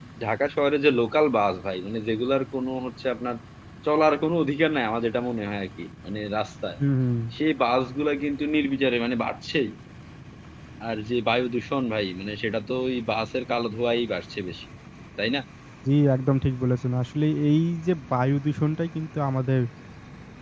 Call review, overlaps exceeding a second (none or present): none